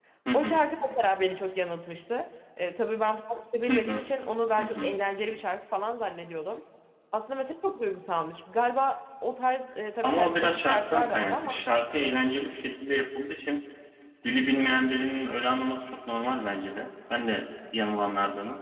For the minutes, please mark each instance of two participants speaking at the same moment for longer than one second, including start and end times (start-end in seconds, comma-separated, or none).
10.0-11.6